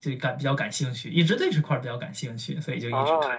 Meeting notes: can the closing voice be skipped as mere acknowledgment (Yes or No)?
No